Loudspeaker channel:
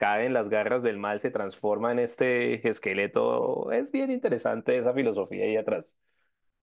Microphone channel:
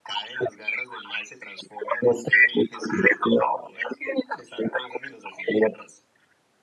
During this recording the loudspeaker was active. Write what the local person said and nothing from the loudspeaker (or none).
none